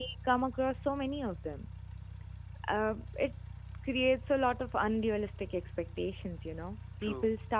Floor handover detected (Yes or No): No